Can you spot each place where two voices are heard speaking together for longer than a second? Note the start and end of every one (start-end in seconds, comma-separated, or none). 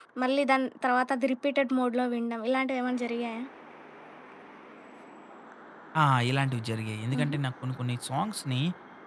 none